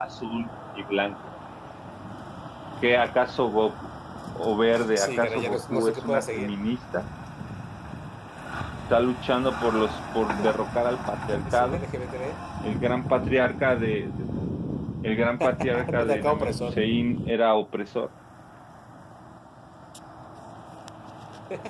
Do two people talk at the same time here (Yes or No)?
Yes